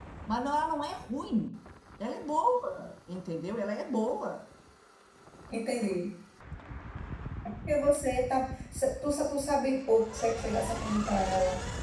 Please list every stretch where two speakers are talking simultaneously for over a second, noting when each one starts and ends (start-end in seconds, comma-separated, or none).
none